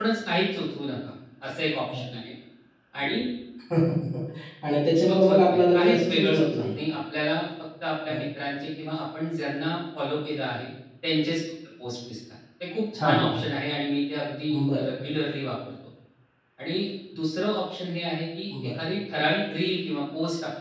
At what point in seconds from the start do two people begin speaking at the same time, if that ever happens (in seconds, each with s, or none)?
5.1 s